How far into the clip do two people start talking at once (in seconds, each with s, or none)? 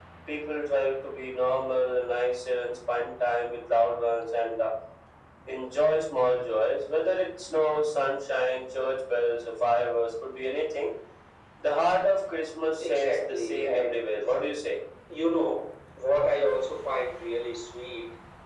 12.8 s